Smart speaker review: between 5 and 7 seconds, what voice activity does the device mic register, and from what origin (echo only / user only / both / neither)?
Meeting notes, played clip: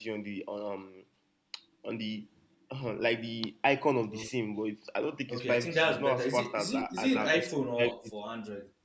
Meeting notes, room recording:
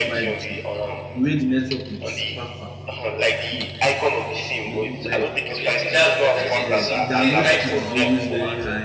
both